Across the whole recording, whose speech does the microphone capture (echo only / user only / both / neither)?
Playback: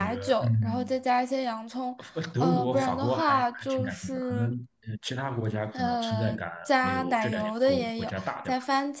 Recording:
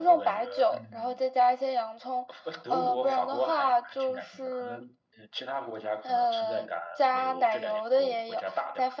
echo only